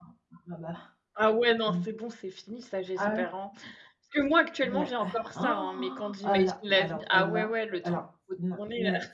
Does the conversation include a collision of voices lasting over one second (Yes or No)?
Yes